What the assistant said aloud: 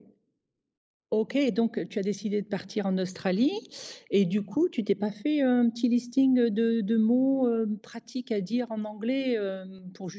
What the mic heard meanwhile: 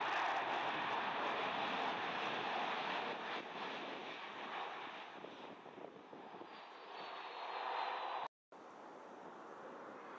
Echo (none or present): none